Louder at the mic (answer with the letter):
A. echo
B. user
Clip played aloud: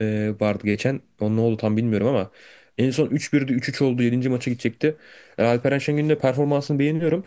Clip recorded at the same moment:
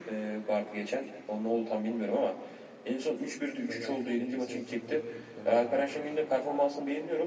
A